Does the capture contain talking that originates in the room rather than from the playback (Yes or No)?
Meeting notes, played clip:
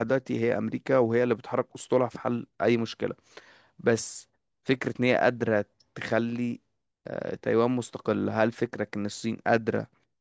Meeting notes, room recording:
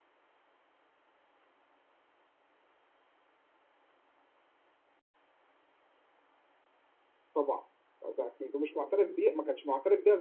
Yes